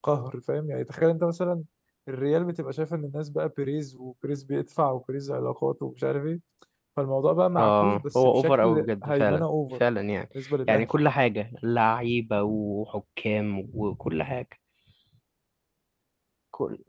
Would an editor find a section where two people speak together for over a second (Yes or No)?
Yes